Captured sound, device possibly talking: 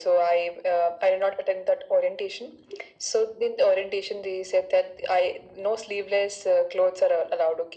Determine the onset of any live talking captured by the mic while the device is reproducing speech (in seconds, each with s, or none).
none